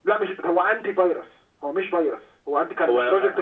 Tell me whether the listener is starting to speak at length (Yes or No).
No